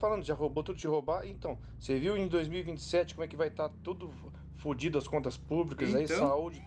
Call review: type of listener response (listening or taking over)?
listening